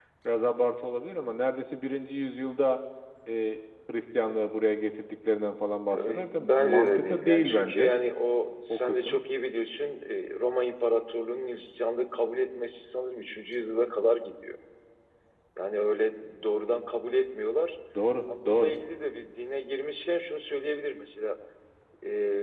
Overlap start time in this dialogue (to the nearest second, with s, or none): 6 s